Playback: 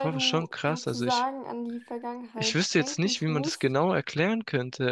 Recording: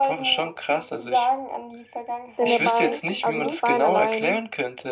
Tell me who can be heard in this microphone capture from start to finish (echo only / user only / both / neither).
both